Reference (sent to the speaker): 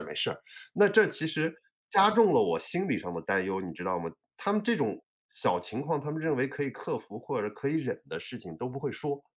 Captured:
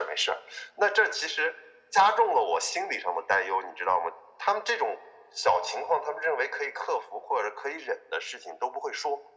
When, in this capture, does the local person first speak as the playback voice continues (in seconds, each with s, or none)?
none